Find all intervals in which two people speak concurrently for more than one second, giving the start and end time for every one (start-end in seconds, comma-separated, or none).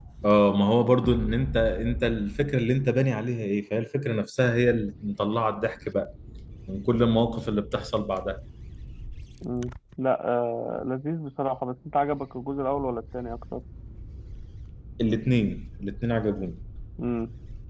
none